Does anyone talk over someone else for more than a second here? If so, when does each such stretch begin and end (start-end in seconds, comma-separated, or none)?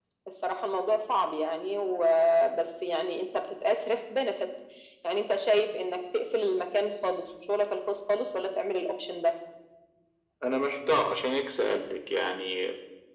none